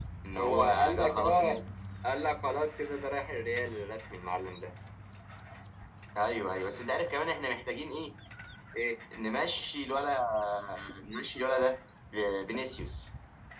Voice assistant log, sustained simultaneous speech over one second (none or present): present